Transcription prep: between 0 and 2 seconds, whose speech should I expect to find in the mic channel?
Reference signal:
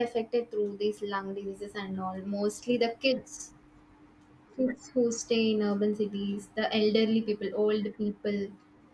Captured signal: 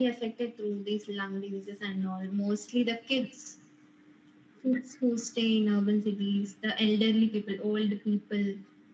echo only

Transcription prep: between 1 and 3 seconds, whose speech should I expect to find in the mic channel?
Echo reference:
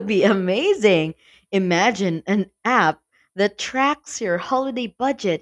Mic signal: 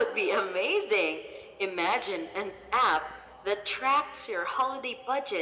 echo only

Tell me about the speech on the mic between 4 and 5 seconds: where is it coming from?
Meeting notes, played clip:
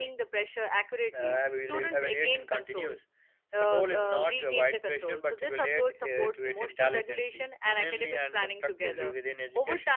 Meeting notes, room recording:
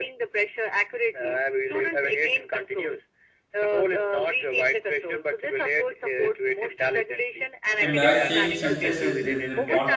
echo only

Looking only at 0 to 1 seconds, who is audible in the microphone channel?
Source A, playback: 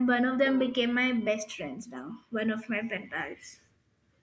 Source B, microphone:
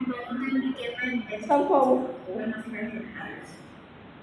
echo only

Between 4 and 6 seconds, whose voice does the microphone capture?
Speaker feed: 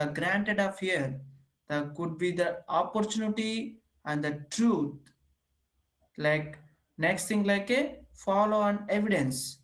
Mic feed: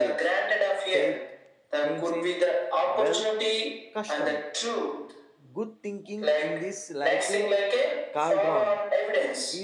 both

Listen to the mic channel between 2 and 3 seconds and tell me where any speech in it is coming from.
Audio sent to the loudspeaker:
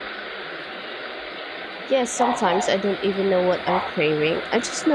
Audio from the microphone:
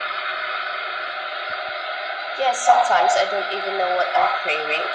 echo only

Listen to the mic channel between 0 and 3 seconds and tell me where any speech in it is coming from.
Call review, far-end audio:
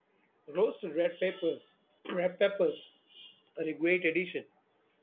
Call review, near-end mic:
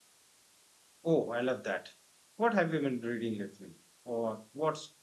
user only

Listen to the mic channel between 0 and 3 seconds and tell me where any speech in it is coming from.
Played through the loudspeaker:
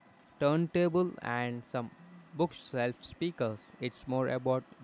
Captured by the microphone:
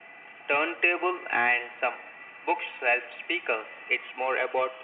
echo only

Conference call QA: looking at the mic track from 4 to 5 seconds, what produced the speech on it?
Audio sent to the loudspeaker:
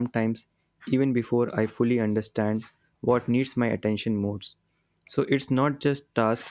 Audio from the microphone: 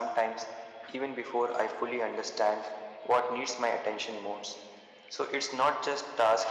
echo only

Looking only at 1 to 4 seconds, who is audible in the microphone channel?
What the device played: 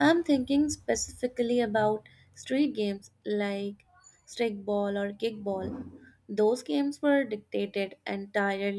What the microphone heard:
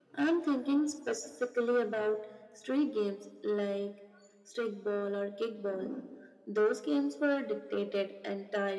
echo only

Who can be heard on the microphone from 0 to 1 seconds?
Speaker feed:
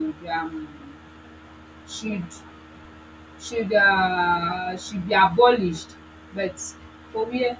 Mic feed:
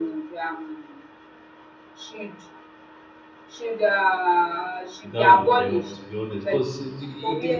echo only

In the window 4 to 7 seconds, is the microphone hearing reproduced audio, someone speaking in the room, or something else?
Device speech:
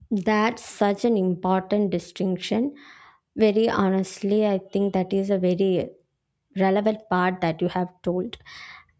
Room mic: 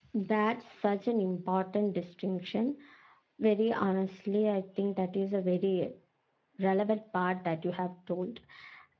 echo only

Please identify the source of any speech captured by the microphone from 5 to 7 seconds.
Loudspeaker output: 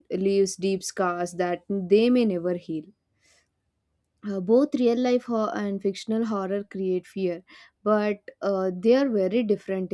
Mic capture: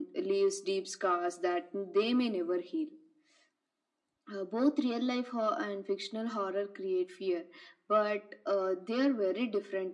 echo only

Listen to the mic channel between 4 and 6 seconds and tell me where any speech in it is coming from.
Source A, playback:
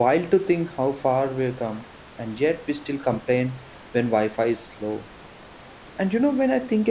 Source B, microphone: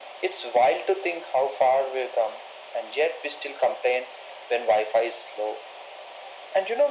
echo only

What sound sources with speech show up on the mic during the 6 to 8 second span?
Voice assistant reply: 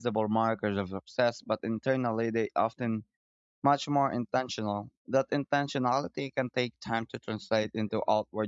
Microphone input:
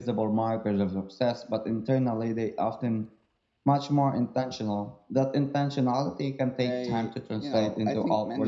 both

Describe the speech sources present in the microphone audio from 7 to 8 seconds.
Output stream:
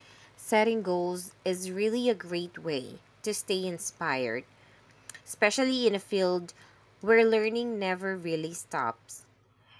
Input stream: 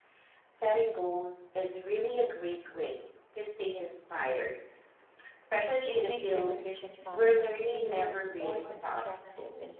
both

